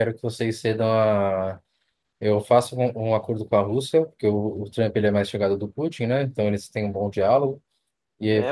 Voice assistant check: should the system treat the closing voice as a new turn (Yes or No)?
Yes